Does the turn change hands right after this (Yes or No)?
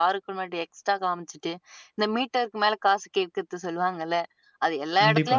No